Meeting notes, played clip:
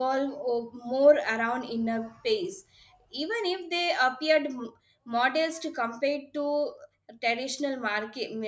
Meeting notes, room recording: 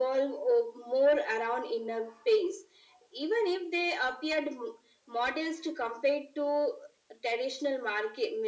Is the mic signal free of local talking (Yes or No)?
Yes